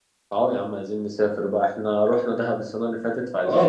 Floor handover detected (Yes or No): Yes